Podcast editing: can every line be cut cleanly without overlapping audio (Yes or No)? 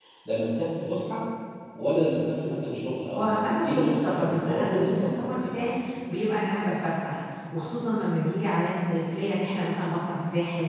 No